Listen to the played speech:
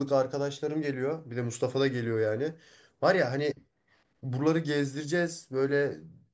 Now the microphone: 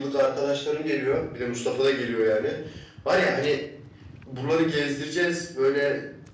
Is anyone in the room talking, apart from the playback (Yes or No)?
No